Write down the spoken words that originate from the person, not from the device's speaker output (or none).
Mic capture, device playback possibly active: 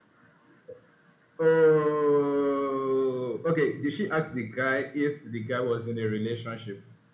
none